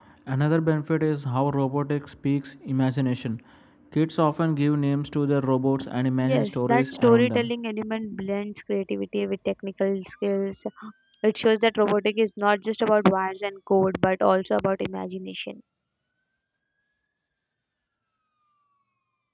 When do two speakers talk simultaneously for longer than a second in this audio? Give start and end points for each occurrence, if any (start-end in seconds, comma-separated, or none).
6.2-7.5